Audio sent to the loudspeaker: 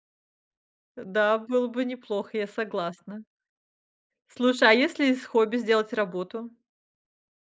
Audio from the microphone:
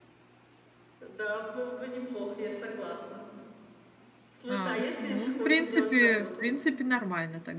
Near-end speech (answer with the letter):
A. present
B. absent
A